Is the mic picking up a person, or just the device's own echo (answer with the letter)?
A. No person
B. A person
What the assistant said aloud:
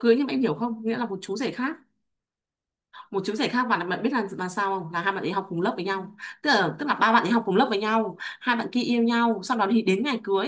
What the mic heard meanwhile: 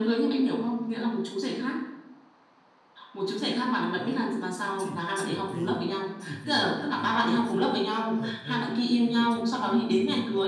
B